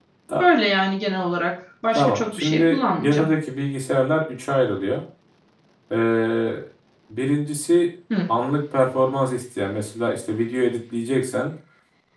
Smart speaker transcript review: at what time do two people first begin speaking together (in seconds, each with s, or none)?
1.9 s